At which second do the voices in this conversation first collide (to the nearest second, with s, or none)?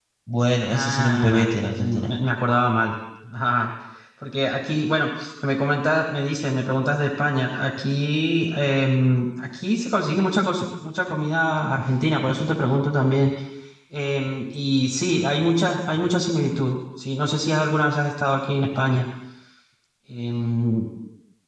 1 s